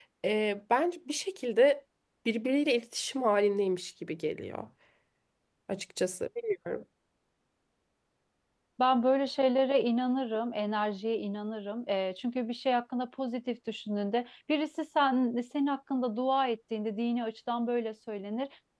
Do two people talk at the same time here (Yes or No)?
No